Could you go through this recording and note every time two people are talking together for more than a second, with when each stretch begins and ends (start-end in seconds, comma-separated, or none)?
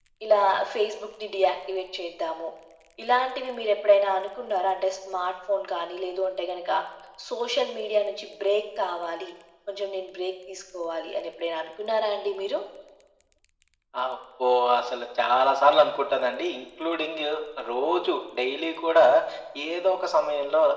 none